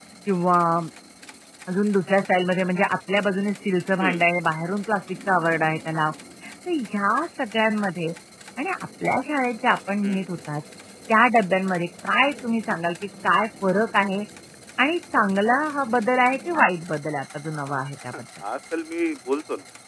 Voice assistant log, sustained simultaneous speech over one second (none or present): none